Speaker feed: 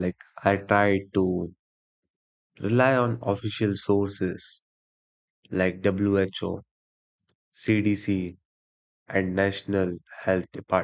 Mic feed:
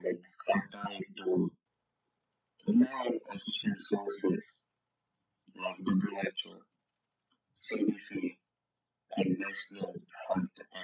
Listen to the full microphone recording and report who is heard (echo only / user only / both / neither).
echo only